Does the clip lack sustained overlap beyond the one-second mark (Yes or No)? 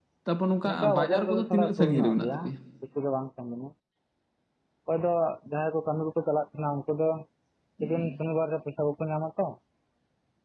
No